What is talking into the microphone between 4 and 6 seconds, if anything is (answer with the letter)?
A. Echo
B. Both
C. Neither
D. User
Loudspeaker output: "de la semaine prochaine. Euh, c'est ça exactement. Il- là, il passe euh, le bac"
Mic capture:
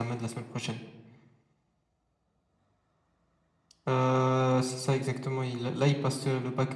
A